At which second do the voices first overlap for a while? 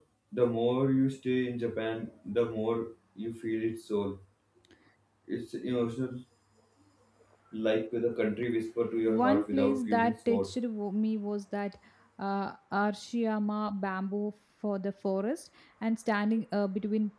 9.1 s

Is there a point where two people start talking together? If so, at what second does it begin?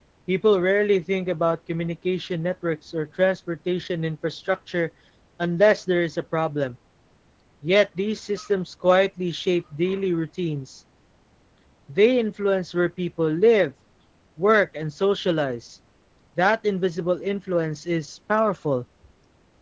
none

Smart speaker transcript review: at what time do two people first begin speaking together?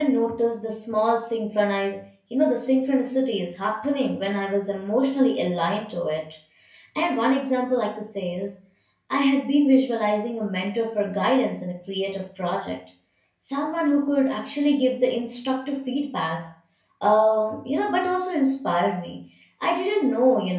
none

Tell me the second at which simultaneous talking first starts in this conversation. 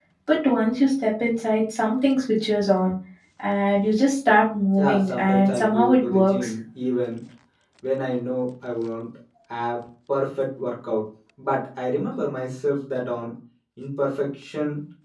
4.8 s

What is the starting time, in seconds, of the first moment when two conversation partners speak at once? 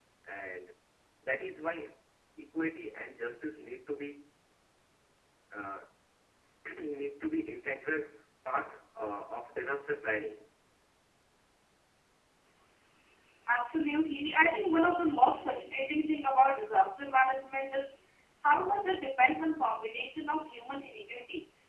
none

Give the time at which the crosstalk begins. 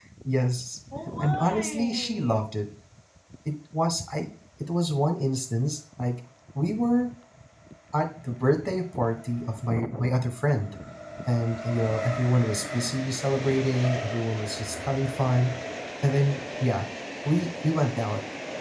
1.2 s

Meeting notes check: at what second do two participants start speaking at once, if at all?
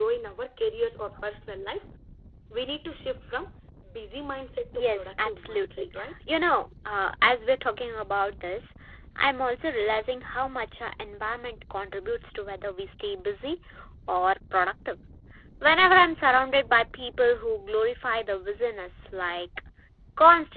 4.8 s

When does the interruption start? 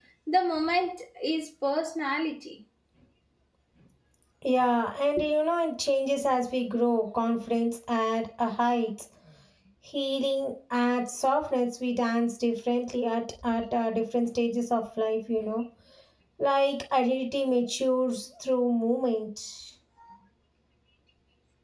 none

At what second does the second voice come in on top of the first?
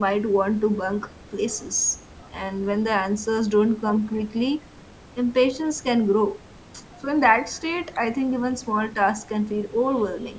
none

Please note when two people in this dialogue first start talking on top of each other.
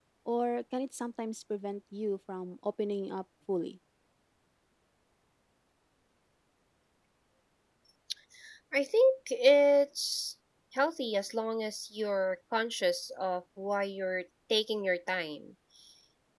none

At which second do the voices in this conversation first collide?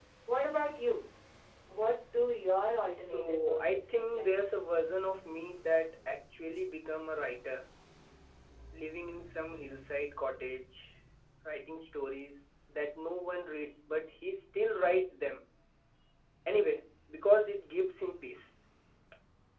3.1 s

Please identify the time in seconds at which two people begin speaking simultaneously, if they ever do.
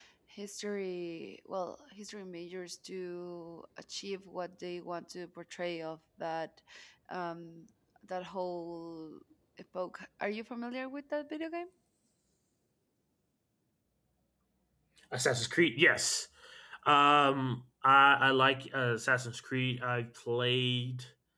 none

